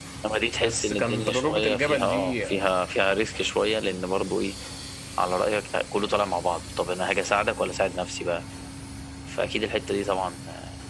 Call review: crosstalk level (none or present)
present